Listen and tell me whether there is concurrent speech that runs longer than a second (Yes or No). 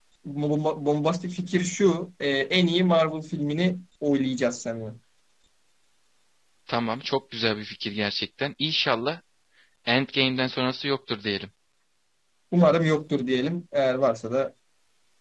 No